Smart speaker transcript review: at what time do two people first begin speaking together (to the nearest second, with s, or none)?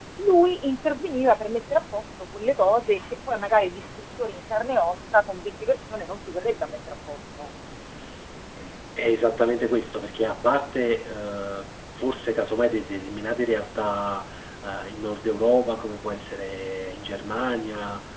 none